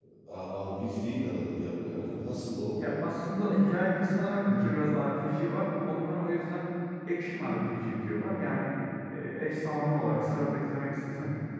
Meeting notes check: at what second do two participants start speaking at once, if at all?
none

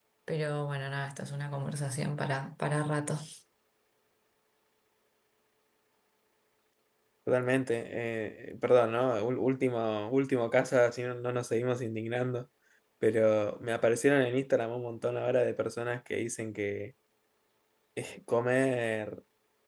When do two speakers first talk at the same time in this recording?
none

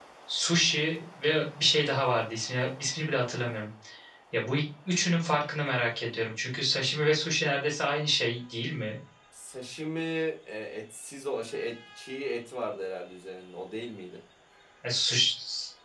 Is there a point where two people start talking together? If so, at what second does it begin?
none

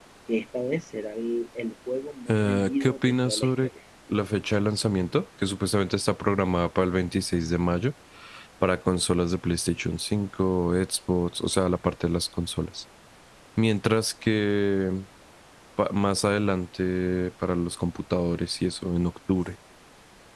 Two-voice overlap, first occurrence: 2.3 s

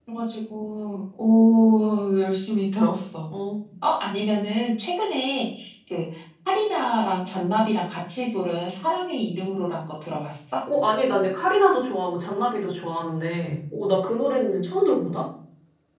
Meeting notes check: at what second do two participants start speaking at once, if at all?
none

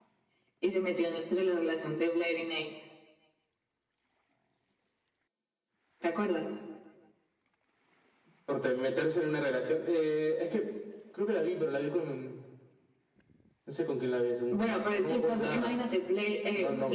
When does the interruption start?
14.5 s

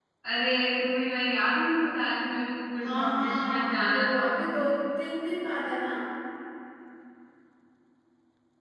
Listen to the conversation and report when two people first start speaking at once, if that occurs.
2.8 s

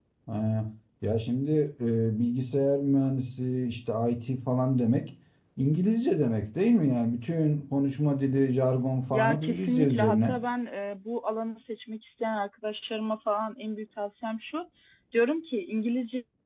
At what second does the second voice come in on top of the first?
9.1 s

